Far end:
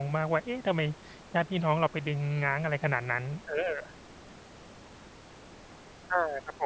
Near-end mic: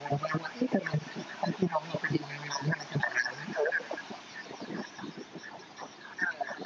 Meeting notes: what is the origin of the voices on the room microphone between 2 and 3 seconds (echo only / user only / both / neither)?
echo only